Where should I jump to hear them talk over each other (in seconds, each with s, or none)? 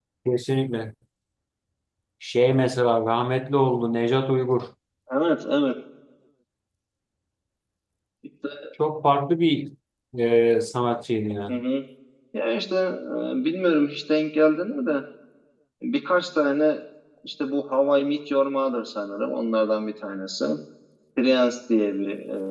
none